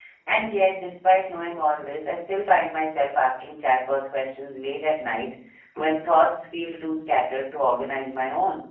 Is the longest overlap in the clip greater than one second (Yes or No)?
No